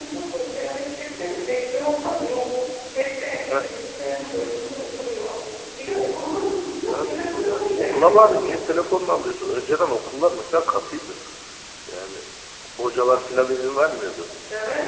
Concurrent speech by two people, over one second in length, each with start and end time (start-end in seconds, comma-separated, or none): 6.8-8.4